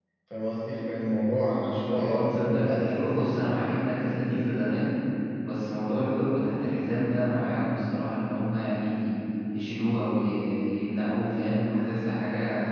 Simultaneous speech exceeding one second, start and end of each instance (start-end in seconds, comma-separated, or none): 1.8-3.4